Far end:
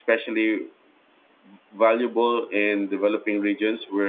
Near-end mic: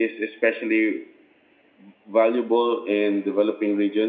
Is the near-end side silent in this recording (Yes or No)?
Yes